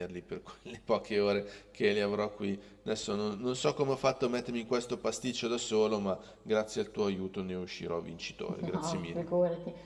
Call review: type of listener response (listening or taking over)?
taking over